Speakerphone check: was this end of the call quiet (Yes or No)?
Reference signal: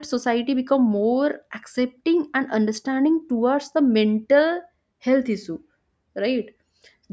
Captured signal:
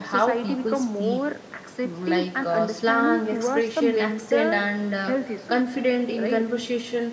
No